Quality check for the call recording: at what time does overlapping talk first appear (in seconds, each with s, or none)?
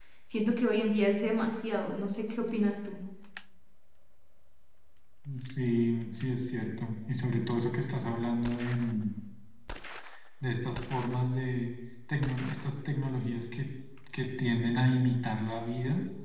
none